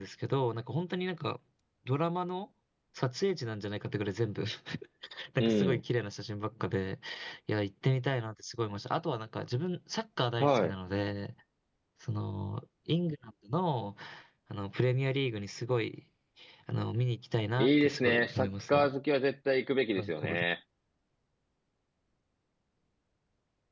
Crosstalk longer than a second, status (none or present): present